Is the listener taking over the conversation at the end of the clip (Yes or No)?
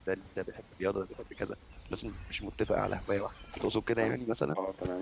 Yes